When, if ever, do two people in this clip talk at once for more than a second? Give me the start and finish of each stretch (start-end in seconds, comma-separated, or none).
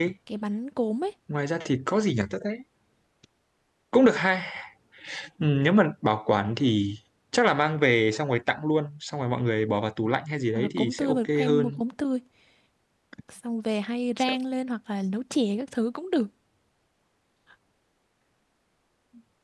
10.6-11.8